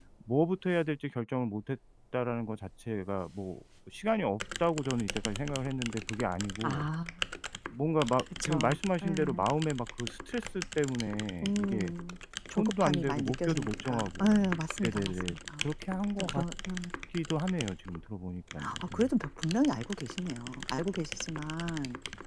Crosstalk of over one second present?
Yes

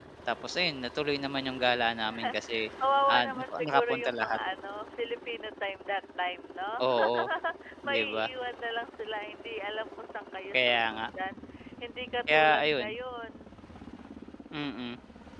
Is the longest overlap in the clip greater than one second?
Yes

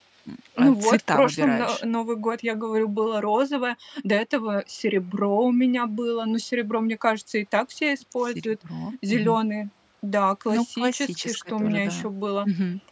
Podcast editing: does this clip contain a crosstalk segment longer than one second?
Yes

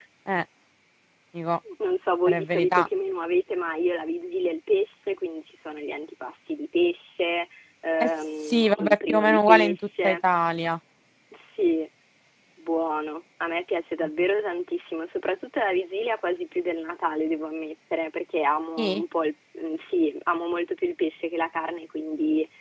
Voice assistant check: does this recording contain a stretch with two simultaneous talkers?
Yes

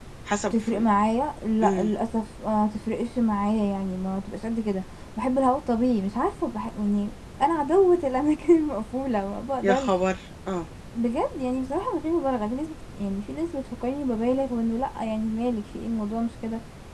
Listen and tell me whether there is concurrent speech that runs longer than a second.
No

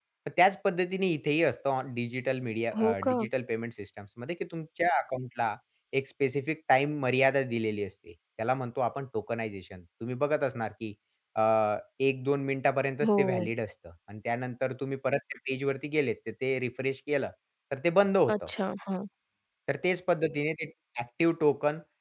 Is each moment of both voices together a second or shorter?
Yes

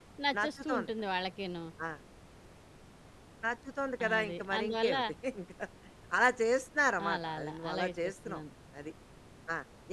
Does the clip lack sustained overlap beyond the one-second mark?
No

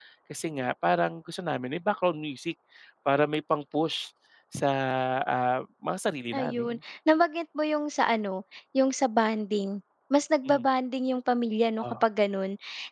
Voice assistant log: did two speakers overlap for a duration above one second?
No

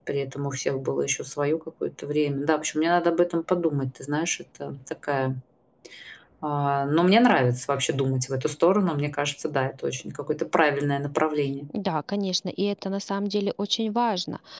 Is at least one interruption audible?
No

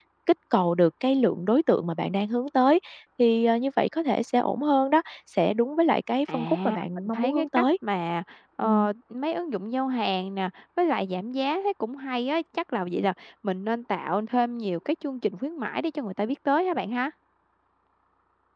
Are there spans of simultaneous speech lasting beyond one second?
Yes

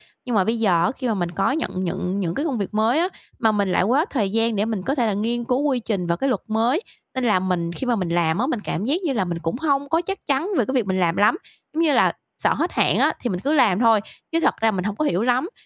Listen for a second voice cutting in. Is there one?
No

